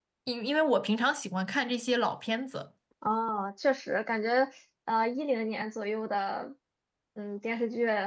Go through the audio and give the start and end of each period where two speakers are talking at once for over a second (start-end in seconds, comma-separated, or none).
none